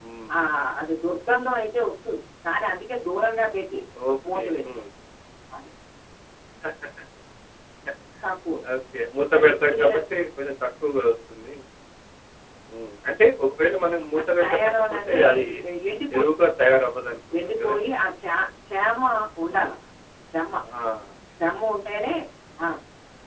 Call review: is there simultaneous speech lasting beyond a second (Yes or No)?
Yes